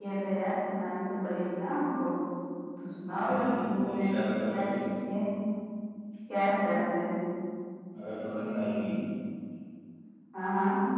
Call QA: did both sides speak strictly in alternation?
No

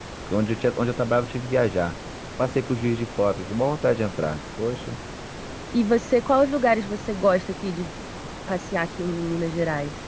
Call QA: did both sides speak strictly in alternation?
Yes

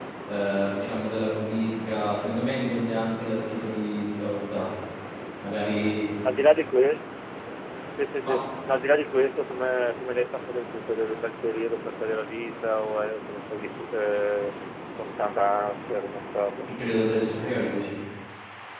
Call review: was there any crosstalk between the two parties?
No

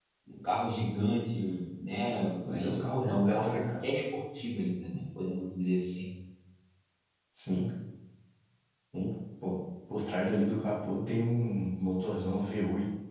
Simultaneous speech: Yes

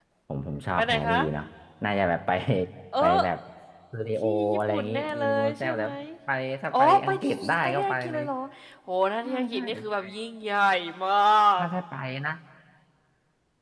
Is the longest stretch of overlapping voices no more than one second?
No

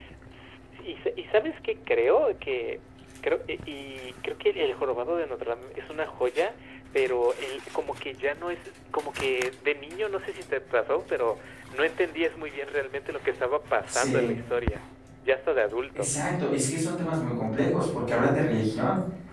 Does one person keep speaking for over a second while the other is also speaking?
No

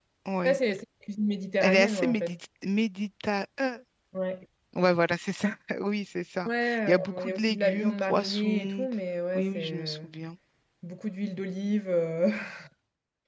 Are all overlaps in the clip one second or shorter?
No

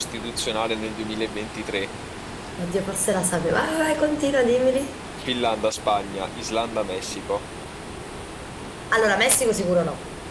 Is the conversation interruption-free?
Yes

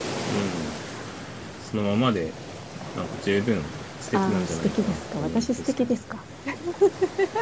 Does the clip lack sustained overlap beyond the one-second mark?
No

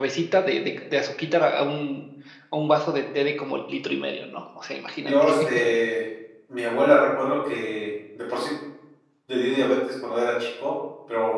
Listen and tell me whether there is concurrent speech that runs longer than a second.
No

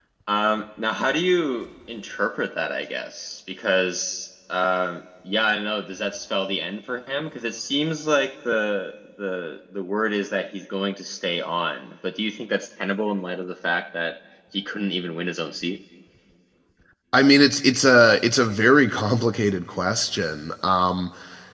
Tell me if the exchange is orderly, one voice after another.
Yes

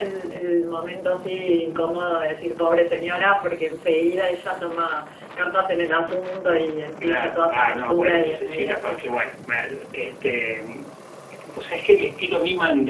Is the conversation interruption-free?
No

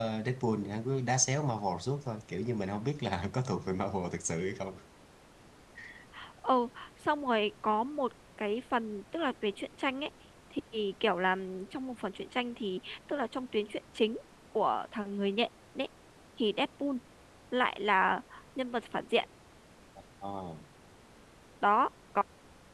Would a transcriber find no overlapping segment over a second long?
Yes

